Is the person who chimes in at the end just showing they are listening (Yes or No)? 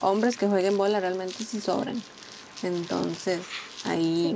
No